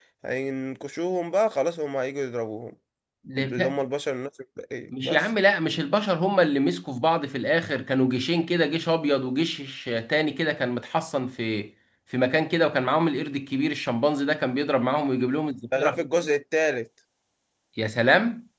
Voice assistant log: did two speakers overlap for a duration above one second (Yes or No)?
No